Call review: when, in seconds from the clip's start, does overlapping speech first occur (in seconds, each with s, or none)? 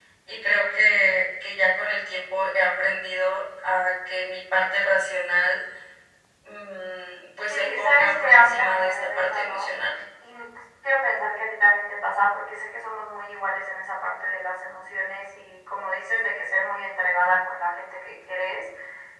7.5 s